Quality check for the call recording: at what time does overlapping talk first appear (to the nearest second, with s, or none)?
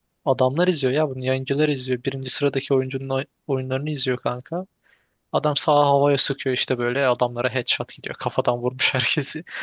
none